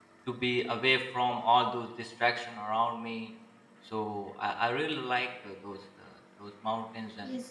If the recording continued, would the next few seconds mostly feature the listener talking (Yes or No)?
Yes